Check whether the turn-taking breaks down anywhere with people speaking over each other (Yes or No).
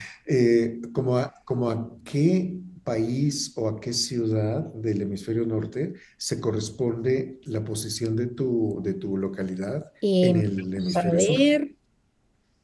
Yes